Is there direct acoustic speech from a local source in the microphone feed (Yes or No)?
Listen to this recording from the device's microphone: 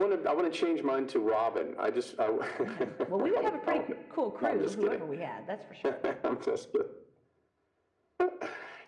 Yes